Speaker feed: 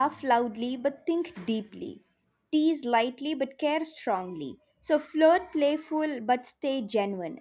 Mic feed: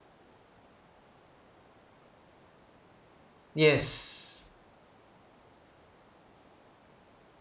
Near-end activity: present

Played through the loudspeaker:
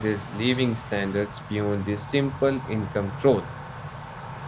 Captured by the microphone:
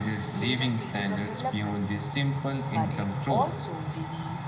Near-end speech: present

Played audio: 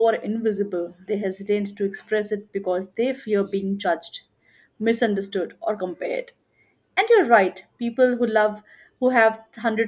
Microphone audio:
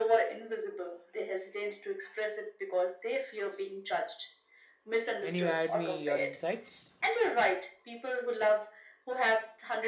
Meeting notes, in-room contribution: present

